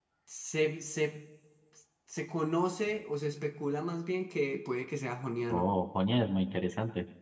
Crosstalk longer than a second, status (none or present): none